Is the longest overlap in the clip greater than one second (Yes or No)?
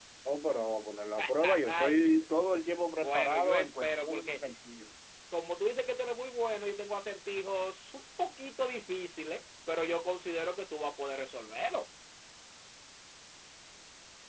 Yes